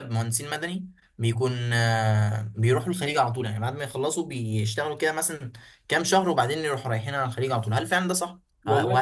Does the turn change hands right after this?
No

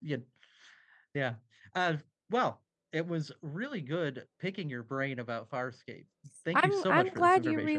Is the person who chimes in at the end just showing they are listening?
No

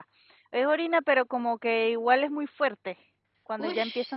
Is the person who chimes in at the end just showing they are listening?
No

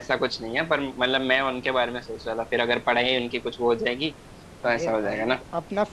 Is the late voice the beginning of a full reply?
Yes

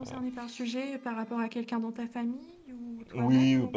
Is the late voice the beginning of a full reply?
Yes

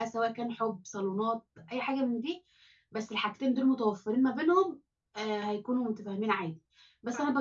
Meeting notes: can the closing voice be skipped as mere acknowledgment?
Yes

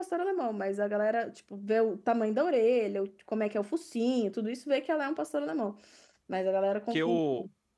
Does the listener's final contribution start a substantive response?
Yes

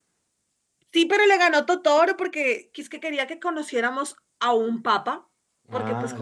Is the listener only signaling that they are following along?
Yes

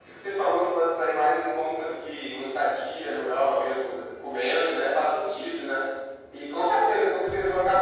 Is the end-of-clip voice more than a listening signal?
No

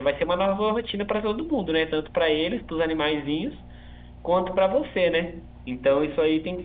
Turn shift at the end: No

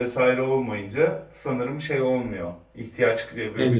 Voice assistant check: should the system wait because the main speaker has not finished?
Yes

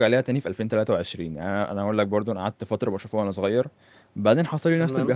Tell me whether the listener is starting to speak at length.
No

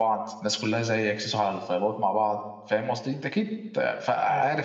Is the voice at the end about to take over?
Yes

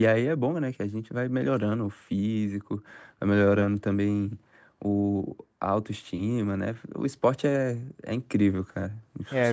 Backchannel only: No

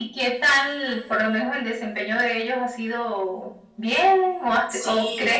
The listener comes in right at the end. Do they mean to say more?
No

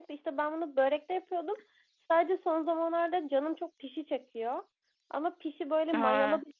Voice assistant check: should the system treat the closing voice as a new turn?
No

